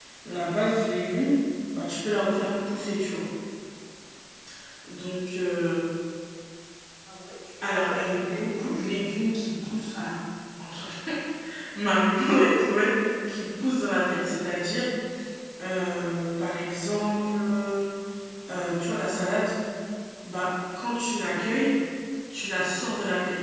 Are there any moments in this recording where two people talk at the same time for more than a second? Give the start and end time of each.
7.6-8.9

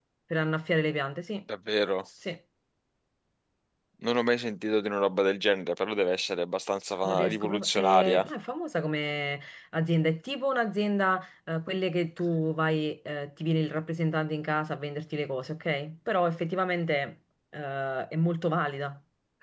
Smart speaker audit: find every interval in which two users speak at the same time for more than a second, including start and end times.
7.0-8.3

